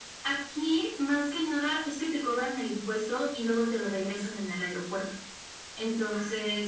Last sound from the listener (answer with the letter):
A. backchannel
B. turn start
A